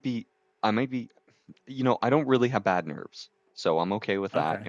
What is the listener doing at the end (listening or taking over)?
listening